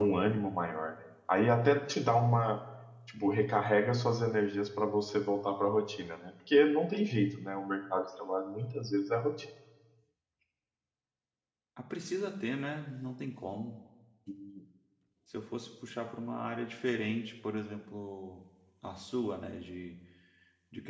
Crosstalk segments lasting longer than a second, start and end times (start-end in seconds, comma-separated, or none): none